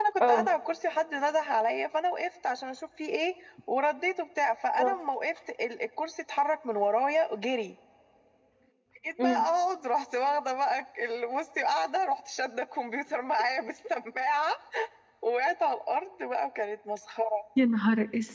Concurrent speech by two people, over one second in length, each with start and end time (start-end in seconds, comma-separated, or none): none